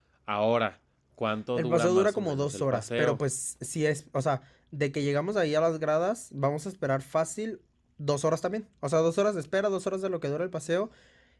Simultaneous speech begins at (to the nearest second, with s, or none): 2 s